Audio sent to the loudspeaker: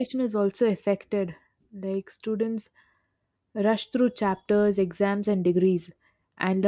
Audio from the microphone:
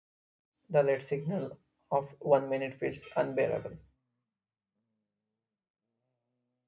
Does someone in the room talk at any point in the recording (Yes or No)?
Yes